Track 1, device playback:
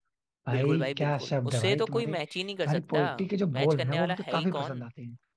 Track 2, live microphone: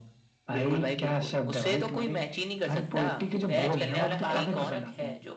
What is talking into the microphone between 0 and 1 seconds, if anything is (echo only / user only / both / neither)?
echo only